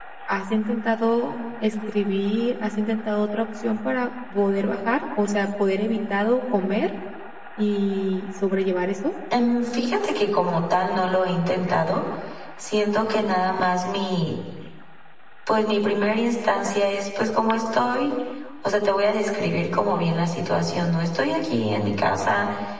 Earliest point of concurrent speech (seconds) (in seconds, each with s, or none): none